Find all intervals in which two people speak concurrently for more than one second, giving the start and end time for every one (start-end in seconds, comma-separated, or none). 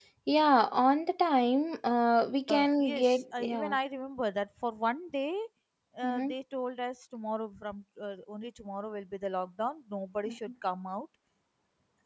2.5-3.8